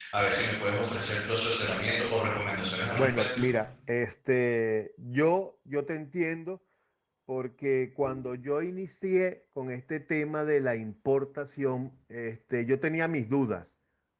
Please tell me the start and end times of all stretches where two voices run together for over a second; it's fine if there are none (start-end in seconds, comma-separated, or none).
none